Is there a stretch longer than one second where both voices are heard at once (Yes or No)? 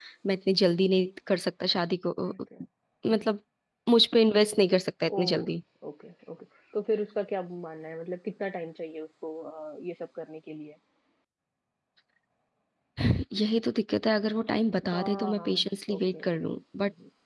Yes